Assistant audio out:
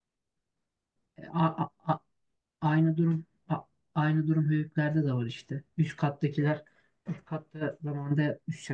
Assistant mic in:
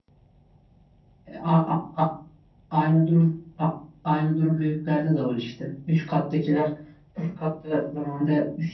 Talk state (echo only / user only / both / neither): echo only